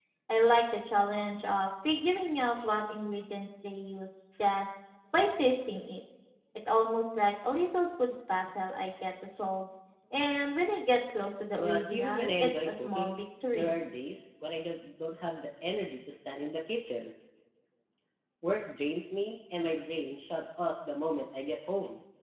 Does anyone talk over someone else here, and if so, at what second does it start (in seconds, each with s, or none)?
11.5 s